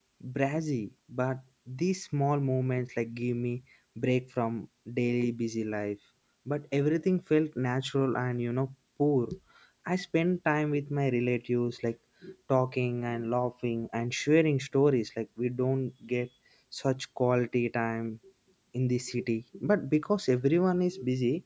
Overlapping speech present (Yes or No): No